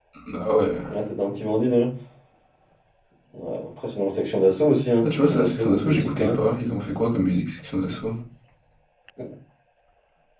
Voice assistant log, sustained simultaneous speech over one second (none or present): present